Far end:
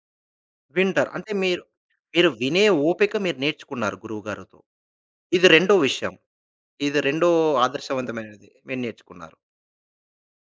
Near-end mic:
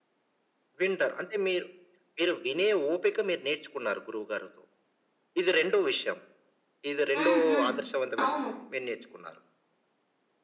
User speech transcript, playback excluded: హ్మ్. హ్మ్. అవును.

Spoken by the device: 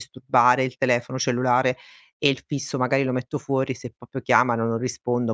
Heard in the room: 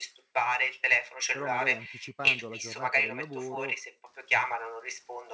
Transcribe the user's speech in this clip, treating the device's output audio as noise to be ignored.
però magari anticipando la giornata del lavoro,

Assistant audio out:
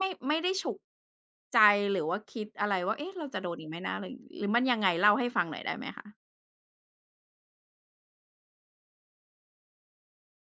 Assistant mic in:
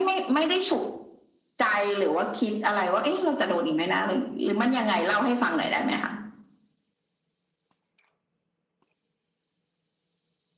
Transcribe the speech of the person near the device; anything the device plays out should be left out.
none

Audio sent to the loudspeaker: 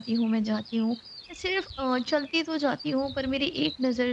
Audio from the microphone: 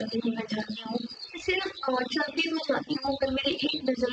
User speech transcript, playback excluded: none

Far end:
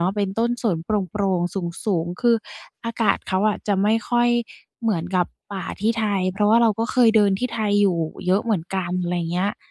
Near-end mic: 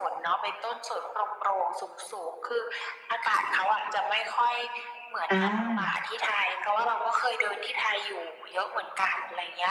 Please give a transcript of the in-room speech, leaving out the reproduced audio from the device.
อา

